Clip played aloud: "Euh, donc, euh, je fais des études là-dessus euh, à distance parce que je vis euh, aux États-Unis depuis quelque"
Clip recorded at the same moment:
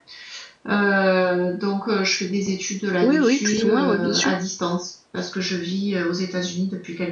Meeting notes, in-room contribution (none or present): present